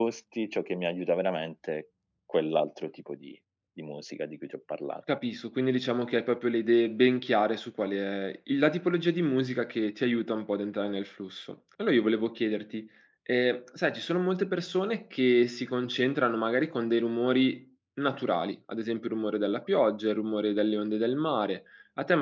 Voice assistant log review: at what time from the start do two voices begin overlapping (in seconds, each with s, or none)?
none